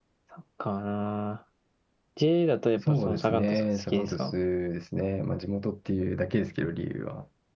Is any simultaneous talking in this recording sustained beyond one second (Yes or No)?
Yes